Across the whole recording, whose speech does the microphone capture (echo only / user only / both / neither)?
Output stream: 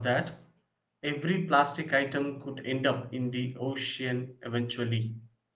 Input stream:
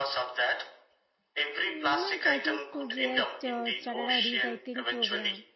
both